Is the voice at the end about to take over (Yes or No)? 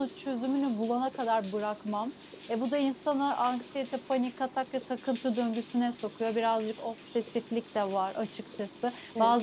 No